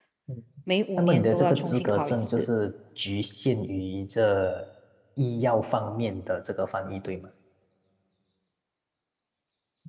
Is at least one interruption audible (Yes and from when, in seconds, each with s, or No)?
Yes, from 1.0 s